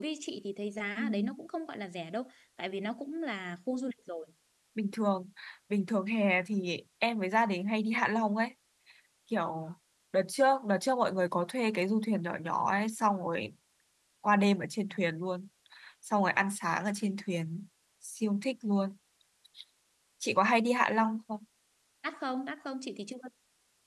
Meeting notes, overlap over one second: none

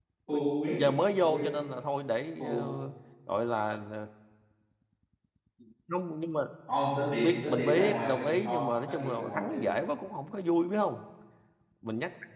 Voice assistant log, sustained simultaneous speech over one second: present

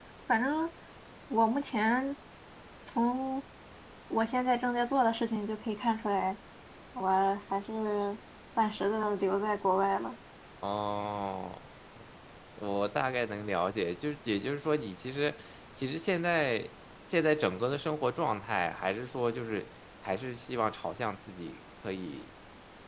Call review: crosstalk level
none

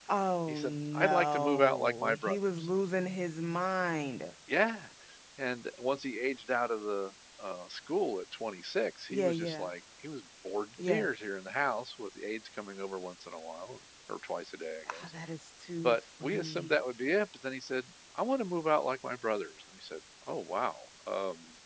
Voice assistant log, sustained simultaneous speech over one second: present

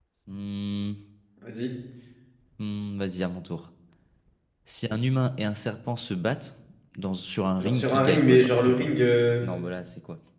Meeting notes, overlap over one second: present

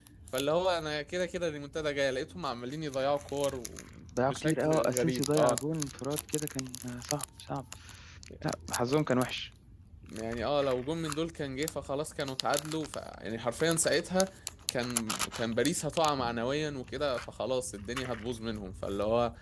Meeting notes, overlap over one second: present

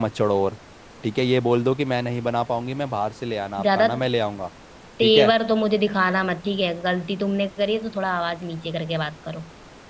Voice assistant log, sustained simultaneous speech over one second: none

